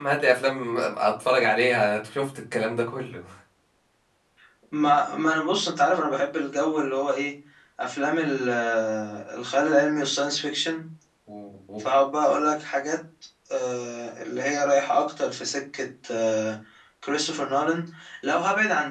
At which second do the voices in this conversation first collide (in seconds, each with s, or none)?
none